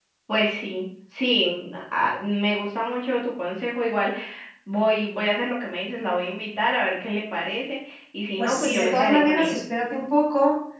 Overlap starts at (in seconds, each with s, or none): 8.4 s